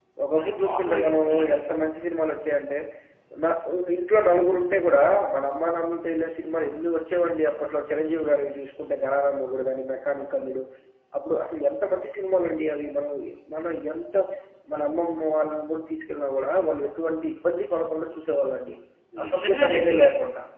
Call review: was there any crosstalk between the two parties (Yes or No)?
Yes